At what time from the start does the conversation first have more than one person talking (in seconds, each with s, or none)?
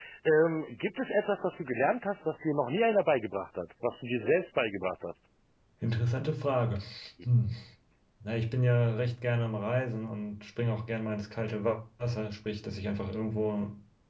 none